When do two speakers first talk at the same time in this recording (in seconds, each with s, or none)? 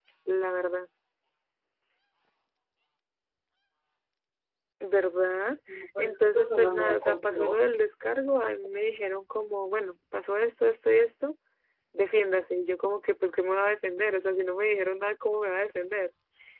5.7 s